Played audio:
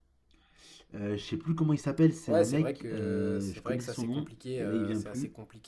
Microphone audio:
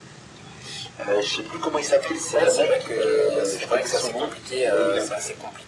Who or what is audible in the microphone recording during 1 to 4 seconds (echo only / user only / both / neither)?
echo only